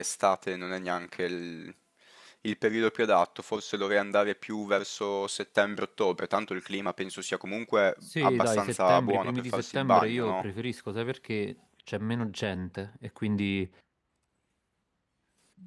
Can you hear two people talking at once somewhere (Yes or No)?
Yes